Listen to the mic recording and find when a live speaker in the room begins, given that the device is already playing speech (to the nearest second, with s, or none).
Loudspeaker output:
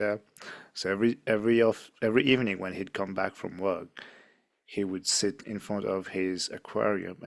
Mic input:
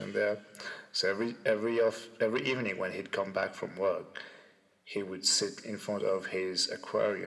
none